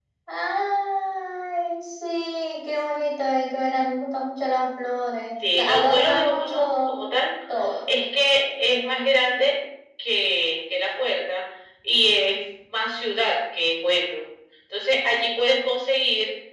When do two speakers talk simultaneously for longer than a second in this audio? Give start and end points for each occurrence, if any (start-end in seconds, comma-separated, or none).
5.5-7.0